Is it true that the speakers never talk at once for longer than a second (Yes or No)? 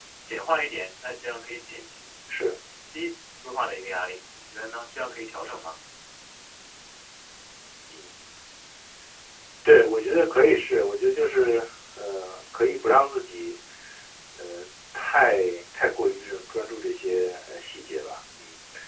Yes